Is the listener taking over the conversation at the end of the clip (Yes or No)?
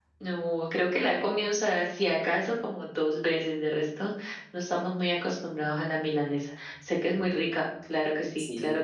Yes